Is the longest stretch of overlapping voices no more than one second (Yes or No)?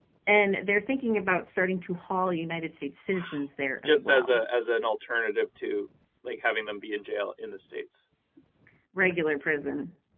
Yes